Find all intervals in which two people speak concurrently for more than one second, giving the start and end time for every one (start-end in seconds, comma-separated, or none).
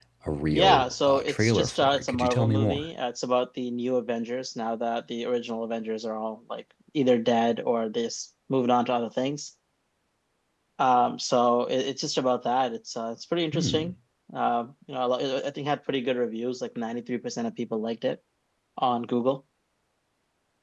0.5-2.9